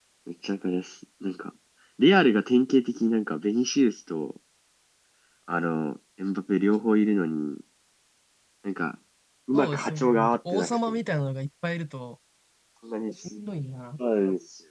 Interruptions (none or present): present